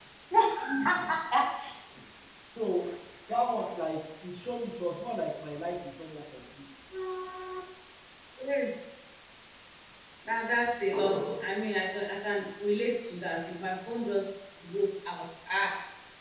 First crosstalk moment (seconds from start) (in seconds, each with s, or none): none